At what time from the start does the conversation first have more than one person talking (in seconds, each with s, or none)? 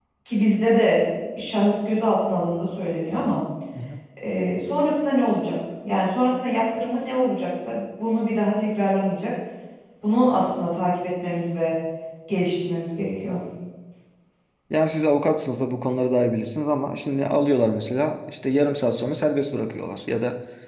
none